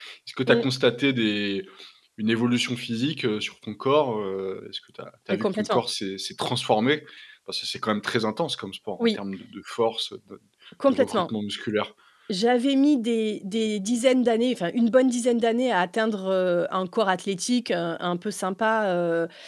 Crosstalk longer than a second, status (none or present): none